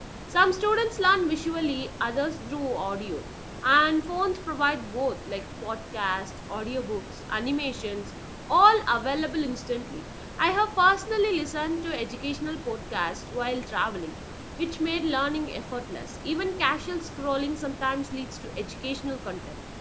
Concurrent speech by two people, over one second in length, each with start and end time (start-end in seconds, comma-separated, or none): none